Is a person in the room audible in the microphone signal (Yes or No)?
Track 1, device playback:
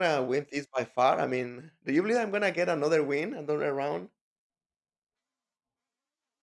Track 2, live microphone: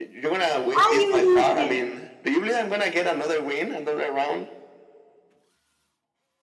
Yes